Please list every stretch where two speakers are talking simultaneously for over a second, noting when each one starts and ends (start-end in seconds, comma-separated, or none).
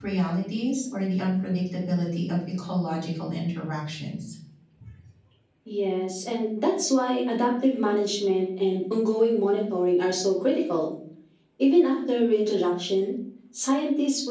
none